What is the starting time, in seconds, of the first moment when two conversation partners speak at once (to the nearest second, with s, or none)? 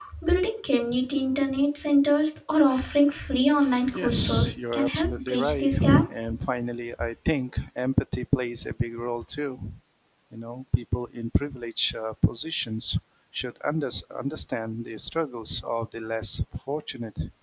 4 s